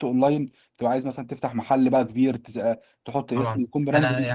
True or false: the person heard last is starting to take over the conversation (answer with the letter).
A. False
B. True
B